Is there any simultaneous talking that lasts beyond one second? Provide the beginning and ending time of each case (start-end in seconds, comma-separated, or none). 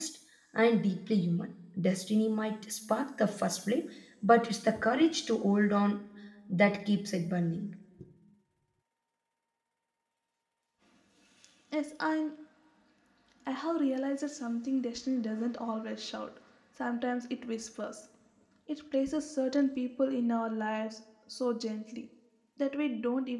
none